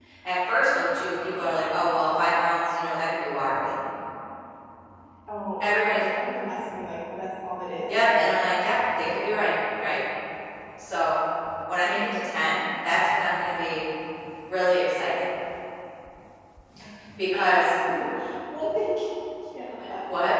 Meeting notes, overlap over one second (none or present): none